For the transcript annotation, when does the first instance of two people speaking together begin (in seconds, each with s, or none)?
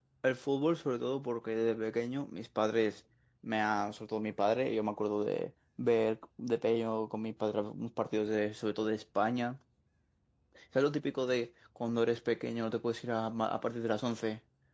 none